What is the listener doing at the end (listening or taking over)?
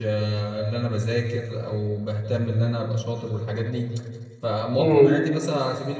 listening